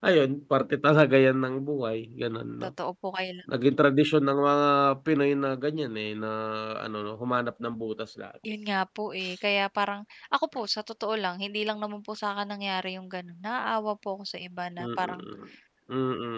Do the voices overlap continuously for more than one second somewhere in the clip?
No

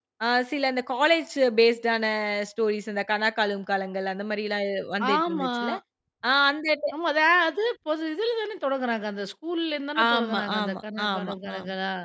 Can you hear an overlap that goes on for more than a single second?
Yes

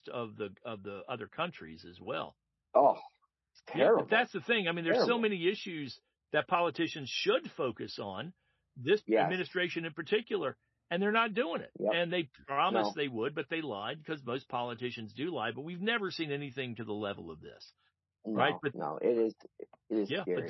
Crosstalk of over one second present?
No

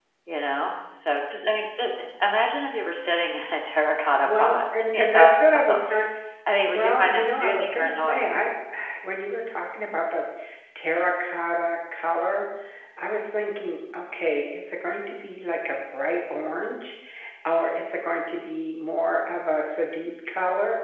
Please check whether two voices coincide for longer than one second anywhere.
Yes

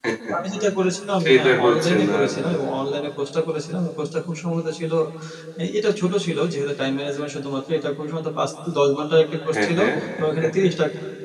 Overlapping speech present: Yes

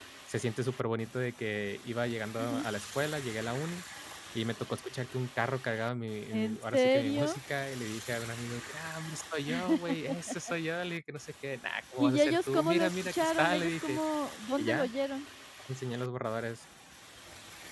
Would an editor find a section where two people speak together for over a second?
Yes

